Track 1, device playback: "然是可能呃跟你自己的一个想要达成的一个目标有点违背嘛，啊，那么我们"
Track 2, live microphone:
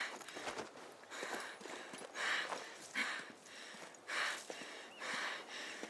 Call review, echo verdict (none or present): none